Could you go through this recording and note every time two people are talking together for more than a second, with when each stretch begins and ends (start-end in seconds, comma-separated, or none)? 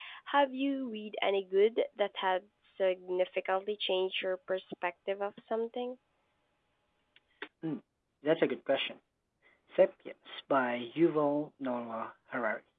none